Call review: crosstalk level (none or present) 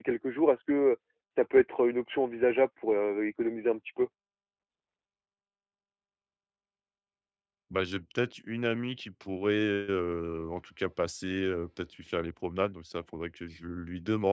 none